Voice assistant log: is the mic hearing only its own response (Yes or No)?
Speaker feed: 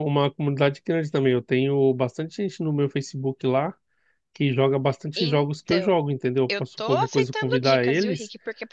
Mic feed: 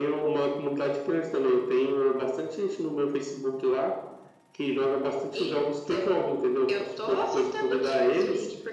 Yes